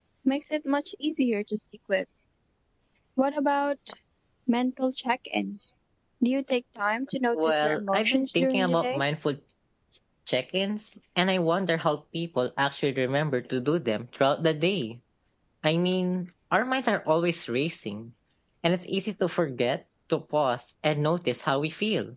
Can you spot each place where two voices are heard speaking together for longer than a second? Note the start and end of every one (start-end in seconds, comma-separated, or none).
7.3-9.0